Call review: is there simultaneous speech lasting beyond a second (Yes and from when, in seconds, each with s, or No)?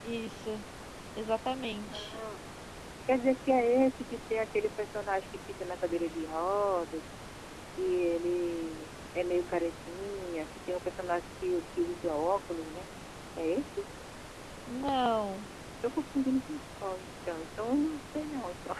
No